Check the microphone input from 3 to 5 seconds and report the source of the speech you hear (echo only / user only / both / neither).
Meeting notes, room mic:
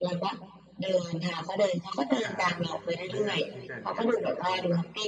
both